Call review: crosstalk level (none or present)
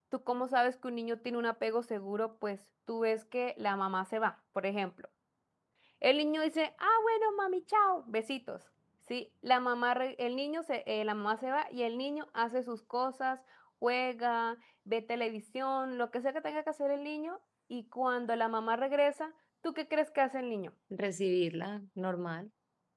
none